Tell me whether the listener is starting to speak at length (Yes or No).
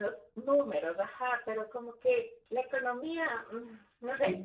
Yes